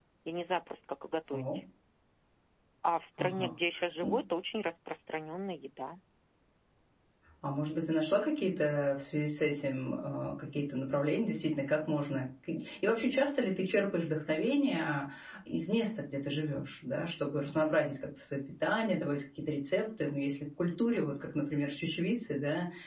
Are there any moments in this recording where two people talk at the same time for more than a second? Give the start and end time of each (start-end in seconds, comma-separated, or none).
none